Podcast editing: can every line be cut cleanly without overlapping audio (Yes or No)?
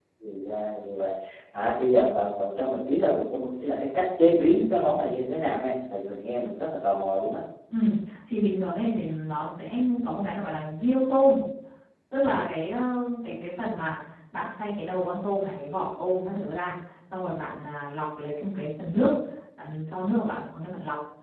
Yes